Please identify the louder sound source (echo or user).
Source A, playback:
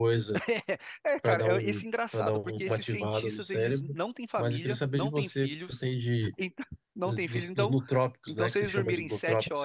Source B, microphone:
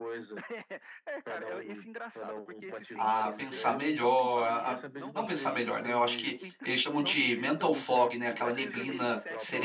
user